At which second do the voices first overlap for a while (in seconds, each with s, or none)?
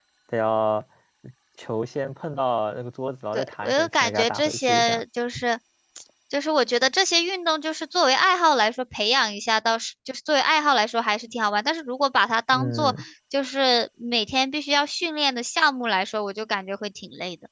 3.3 s